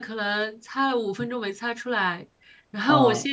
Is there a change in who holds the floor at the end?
No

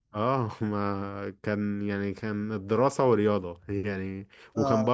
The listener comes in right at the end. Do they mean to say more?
No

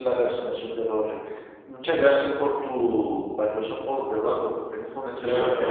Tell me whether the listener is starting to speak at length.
Yes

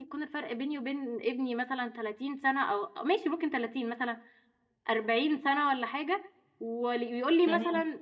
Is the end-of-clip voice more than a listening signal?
No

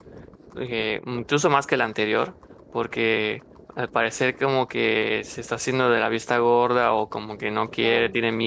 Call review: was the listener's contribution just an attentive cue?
Yes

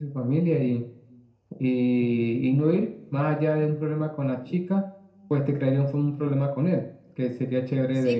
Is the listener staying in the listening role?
No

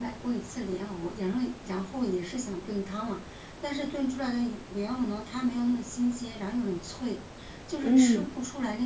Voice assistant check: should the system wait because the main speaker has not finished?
Yes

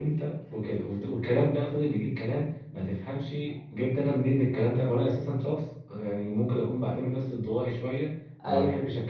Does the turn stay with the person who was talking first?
Yes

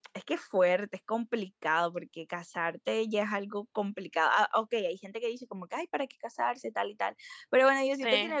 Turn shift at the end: No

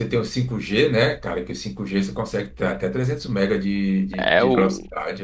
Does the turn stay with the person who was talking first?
No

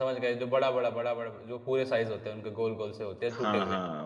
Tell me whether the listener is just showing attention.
No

